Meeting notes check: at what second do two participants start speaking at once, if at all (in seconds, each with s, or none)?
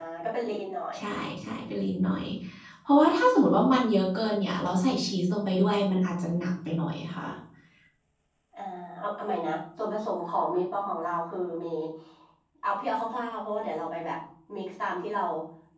none